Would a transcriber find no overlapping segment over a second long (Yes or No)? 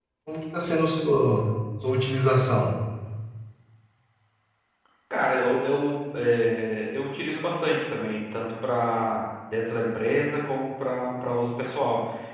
Yes